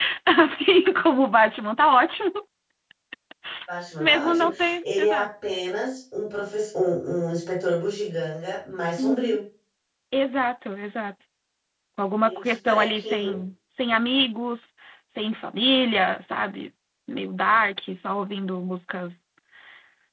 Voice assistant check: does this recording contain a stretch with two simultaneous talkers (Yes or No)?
Yes